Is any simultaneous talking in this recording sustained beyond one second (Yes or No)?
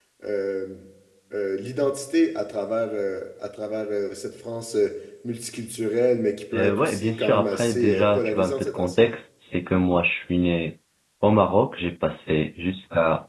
Yes